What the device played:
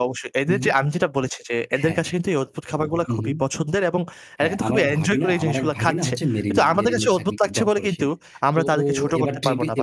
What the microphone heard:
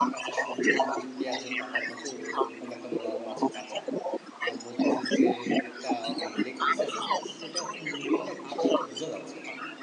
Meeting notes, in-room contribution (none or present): present